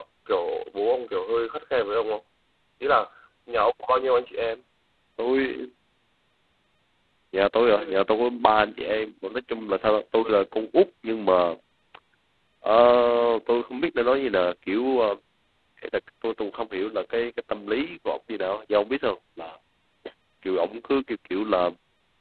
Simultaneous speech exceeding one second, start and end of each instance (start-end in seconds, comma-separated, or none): none